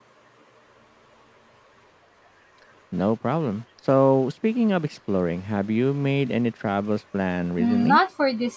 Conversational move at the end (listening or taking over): taking over